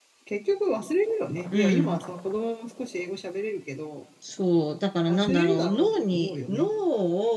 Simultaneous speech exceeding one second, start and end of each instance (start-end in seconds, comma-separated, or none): 5.1-6.6